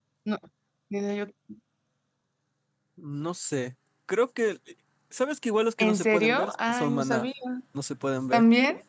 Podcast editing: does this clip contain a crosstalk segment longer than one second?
Yes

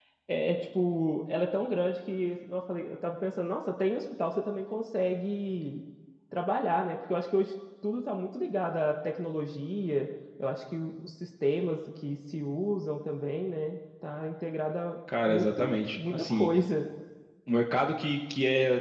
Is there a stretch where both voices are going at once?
Yes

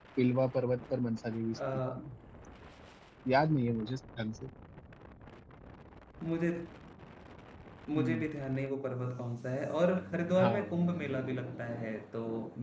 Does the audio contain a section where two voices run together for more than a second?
No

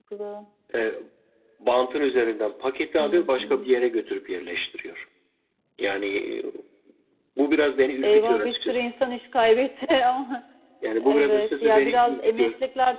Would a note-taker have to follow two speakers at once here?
Yes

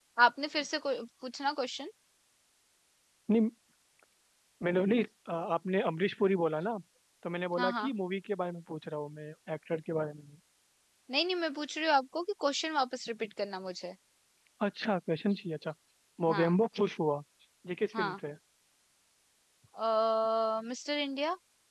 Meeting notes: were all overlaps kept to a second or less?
Yes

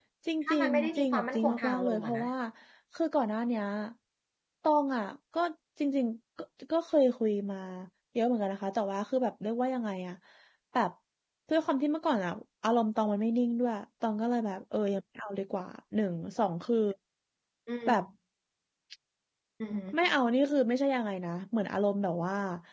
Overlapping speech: Yes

